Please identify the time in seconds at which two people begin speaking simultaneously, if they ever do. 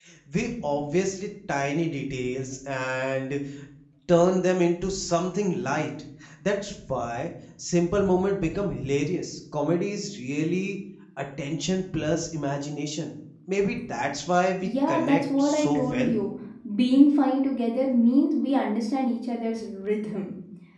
14.6 s

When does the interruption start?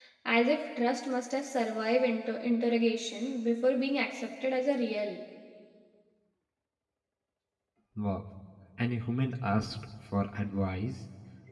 none

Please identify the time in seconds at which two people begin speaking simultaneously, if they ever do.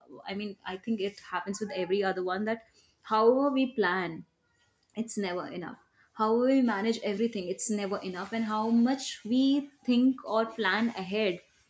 none

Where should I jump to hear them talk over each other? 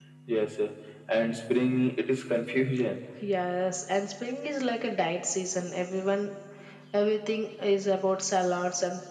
none

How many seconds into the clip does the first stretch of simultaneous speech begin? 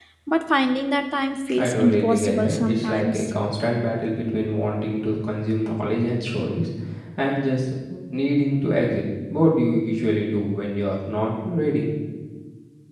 1.5 s

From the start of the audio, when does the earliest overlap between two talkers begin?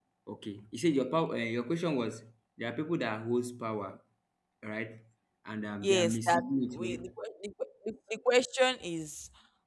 5.8 s

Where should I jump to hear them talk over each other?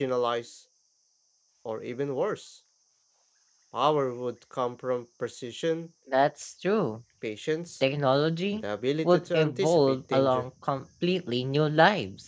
9.0 s

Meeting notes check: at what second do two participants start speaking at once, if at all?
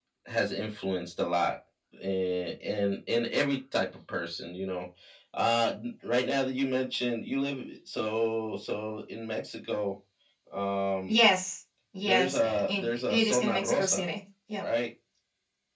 12.0 s

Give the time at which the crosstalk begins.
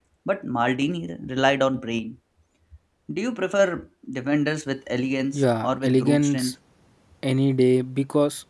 5.3 s

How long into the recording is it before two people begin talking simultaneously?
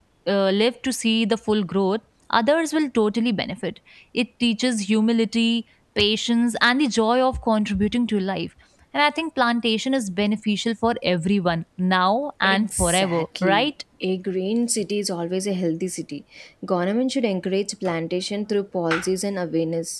12.4 s

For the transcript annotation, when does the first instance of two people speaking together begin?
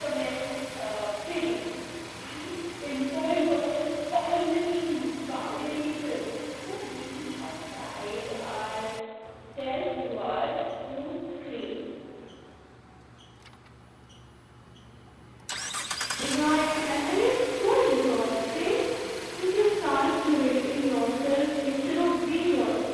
none

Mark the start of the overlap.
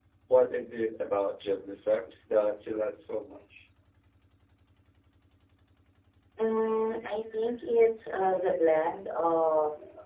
none

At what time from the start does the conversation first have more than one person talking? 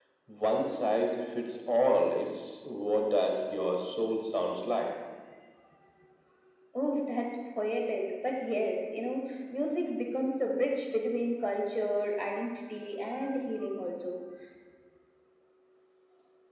none

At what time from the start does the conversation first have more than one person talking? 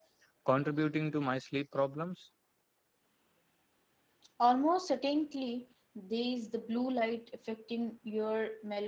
none

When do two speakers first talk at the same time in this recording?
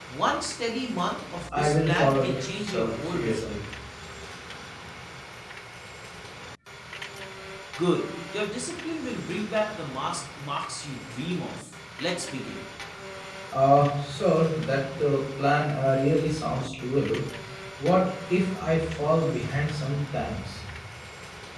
1.5 s

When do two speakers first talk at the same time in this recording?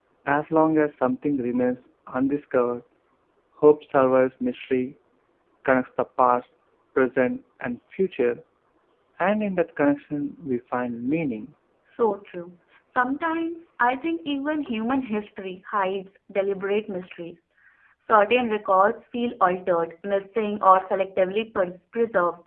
none

